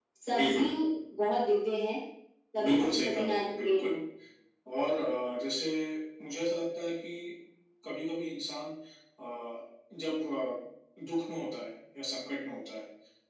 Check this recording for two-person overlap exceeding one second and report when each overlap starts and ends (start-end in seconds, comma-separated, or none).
2.6-4.0